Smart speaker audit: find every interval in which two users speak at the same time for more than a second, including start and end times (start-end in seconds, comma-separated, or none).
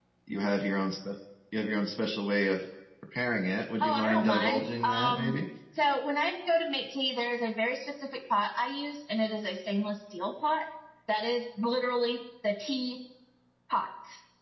3.8-5.3